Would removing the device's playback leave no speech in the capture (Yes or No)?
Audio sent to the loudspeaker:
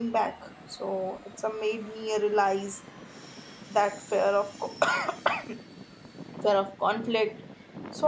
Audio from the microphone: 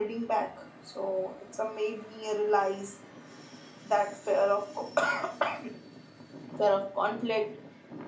Yes